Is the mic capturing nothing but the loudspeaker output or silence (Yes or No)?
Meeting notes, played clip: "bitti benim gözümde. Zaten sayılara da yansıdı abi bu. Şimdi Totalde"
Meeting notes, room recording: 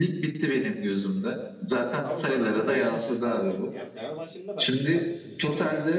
No